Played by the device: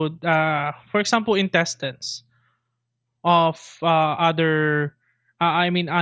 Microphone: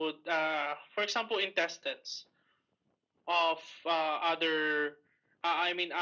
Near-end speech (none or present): none